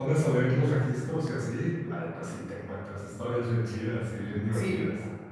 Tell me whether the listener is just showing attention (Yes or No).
No